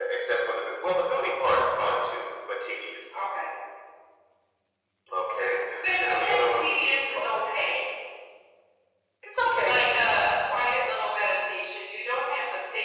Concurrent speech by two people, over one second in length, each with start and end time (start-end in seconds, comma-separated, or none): 6.0-7.2